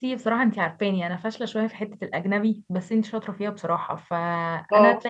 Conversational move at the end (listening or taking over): listening